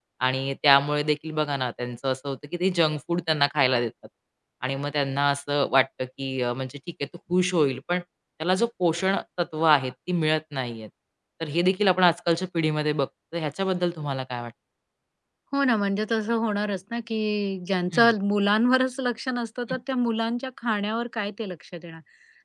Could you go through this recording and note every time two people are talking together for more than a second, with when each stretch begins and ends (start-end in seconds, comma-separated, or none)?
none